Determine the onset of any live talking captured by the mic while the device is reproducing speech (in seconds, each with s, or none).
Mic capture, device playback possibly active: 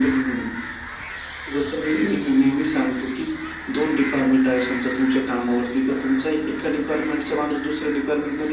none